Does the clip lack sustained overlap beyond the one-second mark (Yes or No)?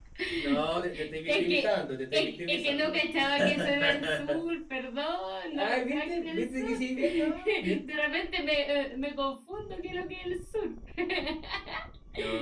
No